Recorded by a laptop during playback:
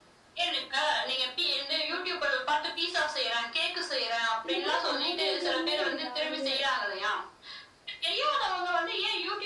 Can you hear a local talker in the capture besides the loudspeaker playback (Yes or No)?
Yes